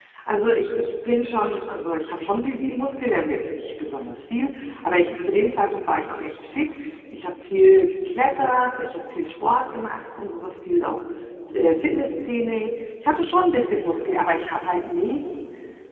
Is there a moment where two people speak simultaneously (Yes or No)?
No